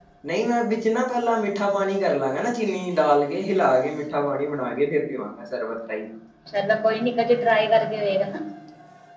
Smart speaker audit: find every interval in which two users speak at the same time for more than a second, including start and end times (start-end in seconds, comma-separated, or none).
none